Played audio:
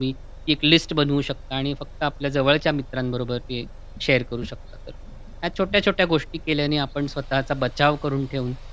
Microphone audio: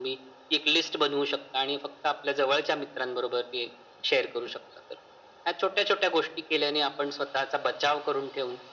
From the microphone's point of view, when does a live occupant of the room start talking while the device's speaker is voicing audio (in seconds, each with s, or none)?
none